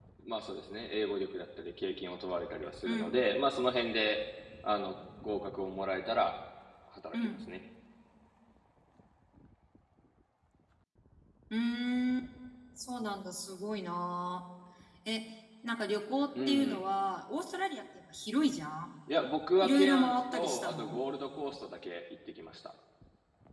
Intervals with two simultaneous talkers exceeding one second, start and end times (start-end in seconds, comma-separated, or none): 19.6-21.0